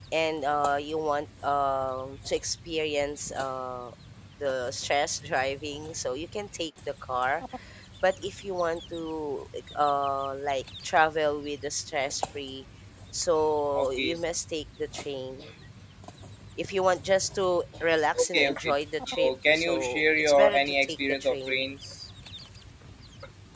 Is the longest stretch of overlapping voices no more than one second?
No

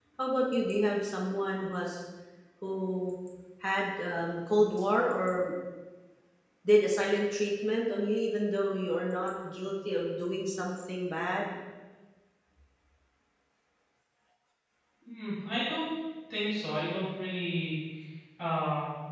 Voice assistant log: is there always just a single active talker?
Yes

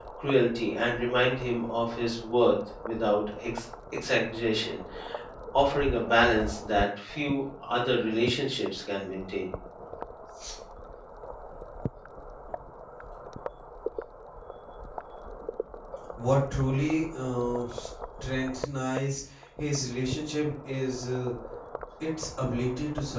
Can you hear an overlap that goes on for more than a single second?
No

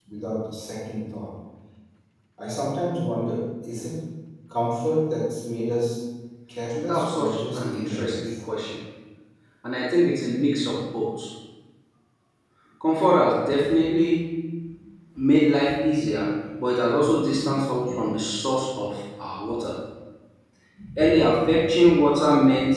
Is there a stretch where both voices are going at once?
Yes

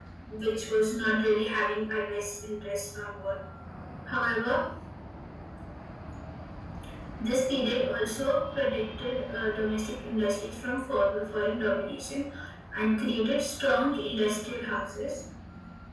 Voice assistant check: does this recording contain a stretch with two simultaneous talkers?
No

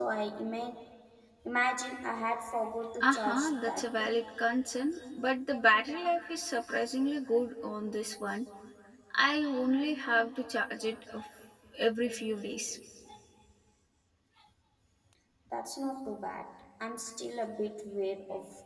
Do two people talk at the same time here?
Yes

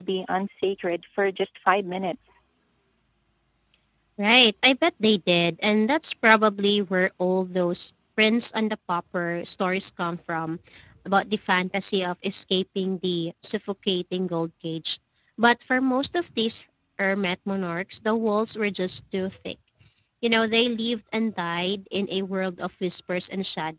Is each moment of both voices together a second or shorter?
Yes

